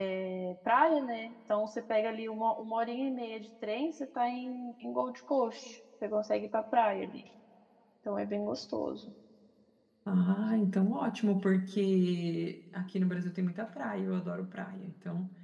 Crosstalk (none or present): none